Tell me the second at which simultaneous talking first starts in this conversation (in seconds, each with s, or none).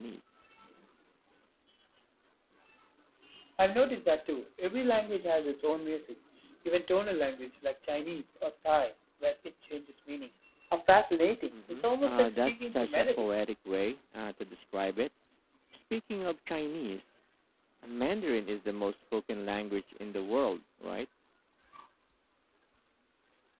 11.5 s